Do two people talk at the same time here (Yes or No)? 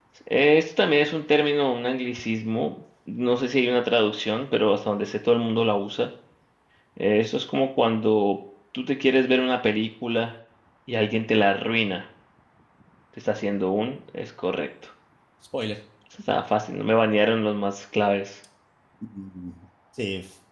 No